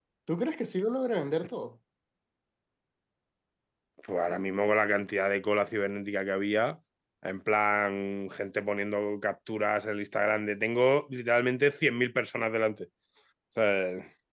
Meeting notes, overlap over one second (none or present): none